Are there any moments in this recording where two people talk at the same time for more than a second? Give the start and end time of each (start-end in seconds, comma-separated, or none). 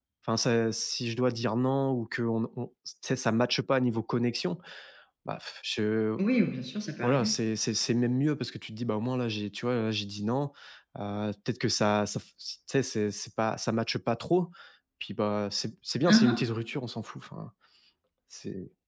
none